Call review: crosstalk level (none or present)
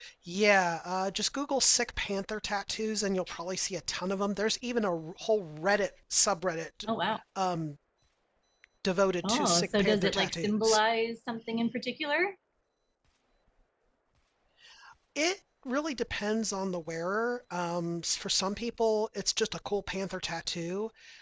present